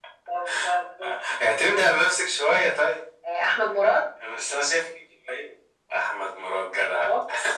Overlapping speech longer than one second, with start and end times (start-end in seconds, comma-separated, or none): none